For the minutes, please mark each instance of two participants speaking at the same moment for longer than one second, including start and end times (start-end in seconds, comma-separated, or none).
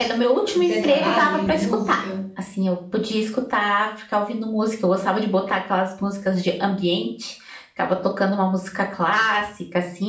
0.5-2.1